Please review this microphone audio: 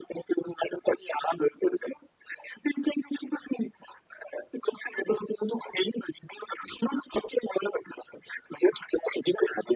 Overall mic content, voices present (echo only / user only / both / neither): echo only